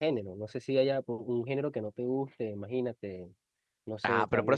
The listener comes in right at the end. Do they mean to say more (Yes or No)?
Yes